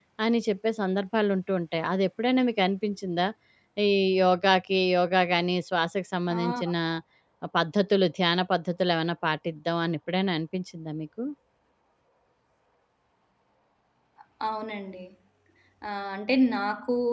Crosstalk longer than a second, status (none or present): none